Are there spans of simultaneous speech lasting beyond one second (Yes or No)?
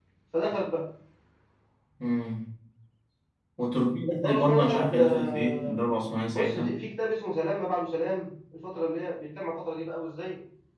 Yes